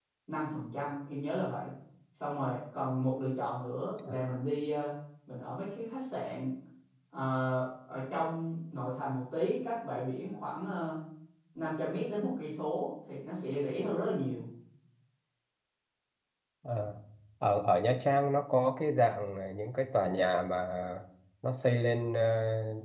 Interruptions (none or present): none